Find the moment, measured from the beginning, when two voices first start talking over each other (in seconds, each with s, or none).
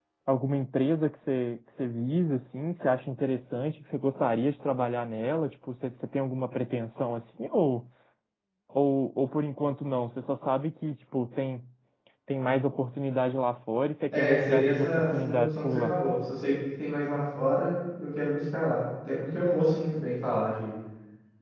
14.1 s